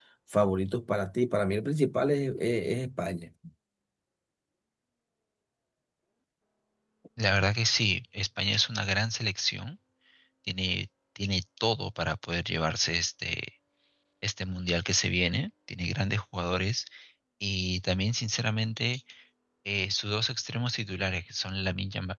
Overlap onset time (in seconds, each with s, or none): none